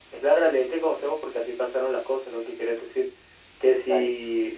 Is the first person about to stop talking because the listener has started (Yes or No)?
No